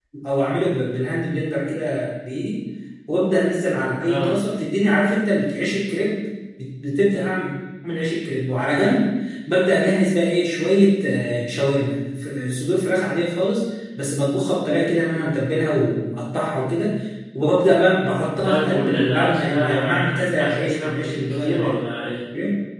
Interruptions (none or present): present